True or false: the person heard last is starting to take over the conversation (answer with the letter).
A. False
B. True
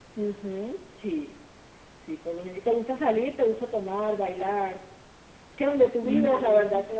A